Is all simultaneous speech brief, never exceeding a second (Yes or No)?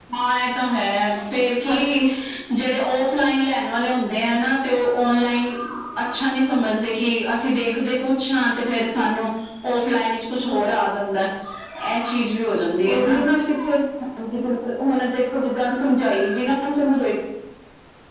Yes